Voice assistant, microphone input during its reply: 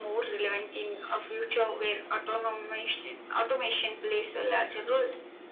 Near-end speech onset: none

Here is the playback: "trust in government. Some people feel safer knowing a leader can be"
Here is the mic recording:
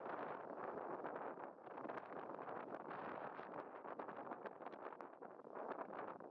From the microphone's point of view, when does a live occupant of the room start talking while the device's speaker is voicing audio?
none

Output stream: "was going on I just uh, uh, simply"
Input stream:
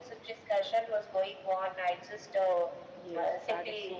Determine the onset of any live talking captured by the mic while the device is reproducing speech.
3 s

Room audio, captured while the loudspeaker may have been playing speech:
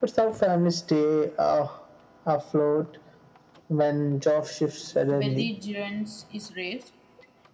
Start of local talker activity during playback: 5 s

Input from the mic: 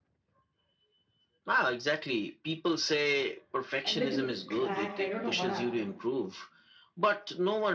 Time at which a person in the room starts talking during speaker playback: 4 s

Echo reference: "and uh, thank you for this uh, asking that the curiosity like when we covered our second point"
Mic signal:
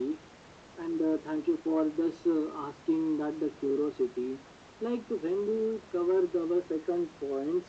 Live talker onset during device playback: none

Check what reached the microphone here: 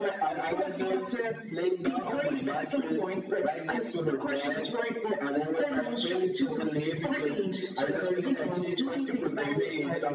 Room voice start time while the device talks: none

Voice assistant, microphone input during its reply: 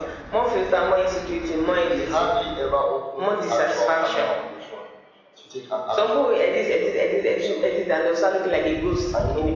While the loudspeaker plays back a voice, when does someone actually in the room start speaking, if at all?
none

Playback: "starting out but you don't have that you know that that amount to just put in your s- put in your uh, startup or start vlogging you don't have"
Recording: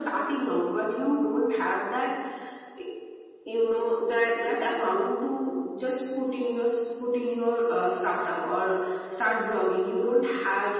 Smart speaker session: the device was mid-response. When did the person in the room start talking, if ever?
none

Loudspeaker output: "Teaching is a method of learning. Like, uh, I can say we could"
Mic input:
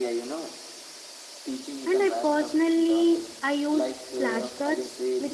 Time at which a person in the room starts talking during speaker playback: 2 s

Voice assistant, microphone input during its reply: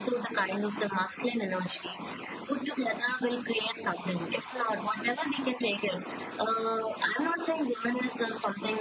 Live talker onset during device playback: none

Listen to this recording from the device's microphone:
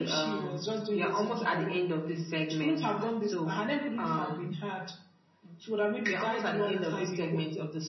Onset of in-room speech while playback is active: none

